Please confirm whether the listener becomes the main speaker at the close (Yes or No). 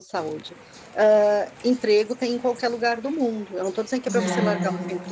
No